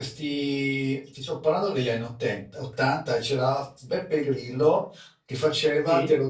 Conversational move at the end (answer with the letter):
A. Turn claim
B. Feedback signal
B